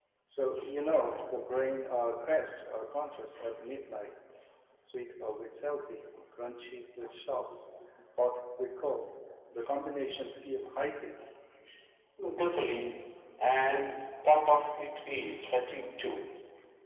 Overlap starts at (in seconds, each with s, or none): none